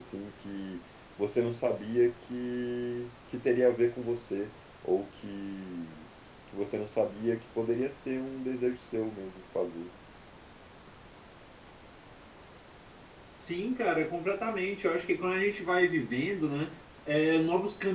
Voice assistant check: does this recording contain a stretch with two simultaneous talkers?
No

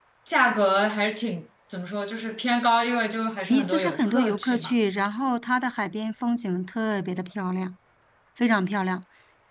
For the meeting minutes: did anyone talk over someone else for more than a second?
Yes, from 3.5 s

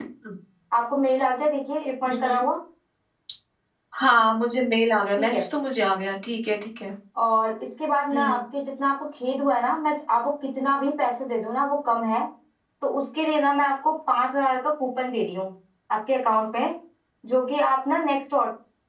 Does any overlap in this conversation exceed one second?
No

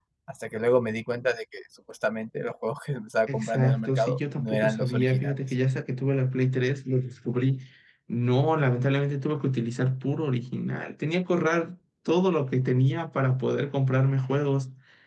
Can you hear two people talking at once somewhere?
Yes, from 3.3 s

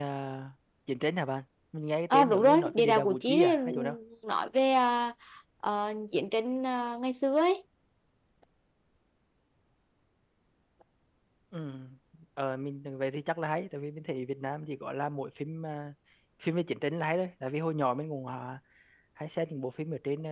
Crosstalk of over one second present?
Yes, from 2.1 s

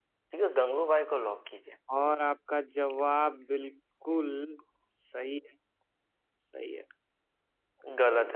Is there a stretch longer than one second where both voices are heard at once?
No

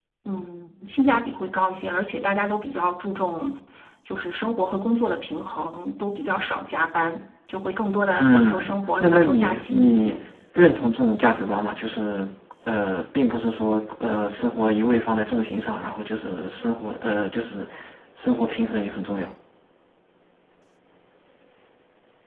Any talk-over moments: Yes, from 8.1 s

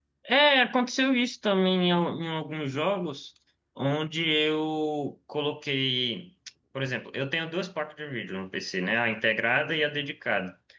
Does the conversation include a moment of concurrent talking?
No

